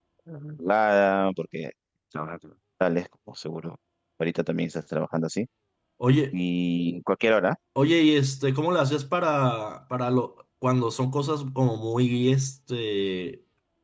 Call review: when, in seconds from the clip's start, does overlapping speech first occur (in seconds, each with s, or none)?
none